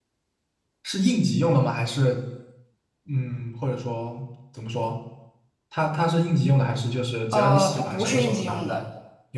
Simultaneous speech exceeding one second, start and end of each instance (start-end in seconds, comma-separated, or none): 7.3-8.8